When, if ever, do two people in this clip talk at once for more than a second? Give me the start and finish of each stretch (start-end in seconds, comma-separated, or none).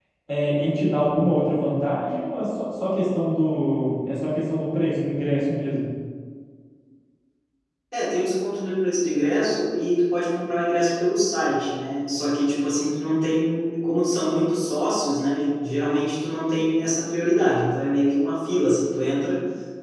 none